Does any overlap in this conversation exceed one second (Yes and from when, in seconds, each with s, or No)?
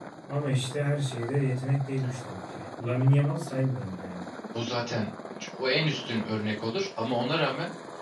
No